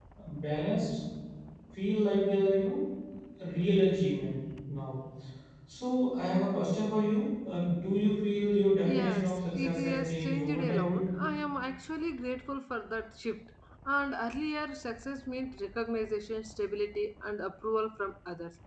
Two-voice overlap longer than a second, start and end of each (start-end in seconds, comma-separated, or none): 8.8-11.1